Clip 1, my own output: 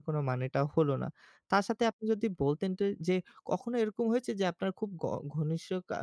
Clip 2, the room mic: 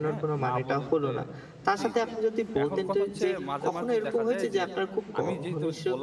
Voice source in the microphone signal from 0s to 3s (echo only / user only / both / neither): both